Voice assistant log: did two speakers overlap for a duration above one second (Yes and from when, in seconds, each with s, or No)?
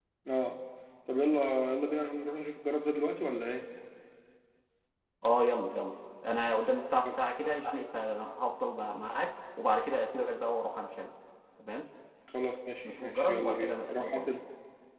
Yes, from 13.0 s